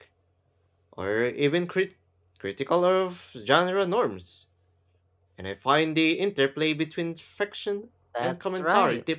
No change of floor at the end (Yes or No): No